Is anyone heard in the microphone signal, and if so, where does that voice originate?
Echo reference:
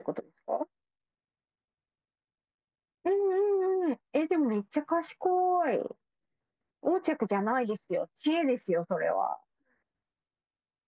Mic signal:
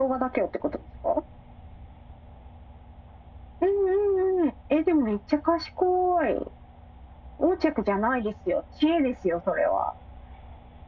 echo only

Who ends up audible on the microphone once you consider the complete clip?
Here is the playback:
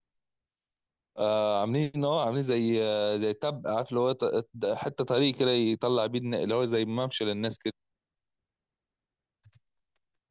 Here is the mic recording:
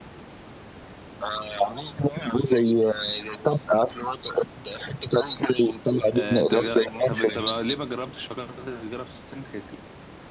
both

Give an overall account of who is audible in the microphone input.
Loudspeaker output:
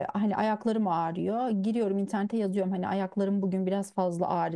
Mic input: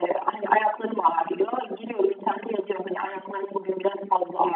echo only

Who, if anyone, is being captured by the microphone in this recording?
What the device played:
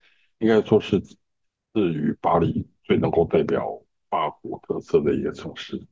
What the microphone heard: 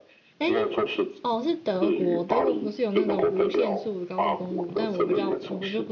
both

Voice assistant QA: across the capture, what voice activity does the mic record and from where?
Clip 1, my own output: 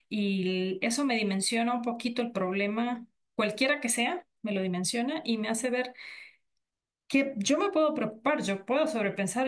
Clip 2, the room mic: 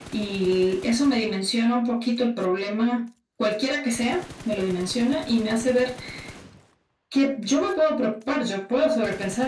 echo only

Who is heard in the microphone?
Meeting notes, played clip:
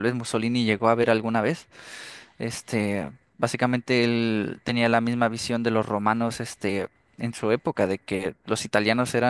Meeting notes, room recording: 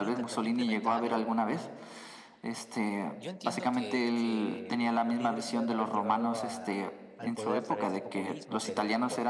both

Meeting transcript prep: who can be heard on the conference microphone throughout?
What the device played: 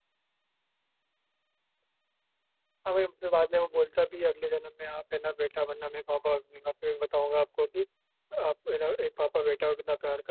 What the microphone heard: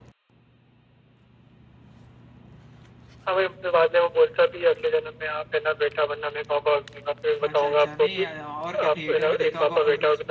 both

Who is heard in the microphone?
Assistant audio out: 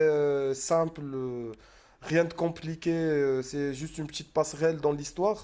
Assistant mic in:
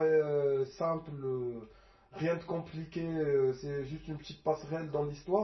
echo only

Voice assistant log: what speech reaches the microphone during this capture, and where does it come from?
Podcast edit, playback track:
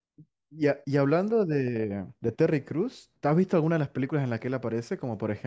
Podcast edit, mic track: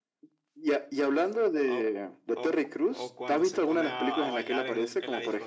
both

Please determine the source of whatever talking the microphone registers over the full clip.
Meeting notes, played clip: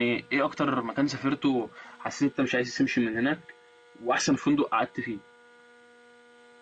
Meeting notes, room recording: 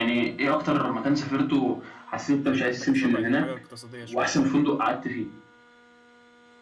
both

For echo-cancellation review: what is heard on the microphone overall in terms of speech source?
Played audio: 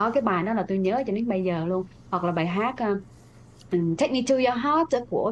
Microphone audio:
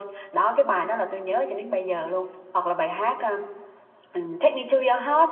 echo only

